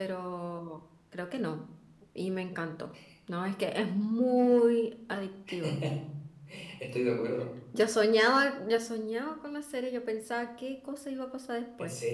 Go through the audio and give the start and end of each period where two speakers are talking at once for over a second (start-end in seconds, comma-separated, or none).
none